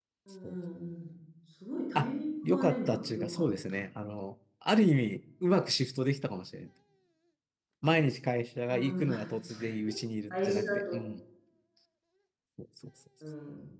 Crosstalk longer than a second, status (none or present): present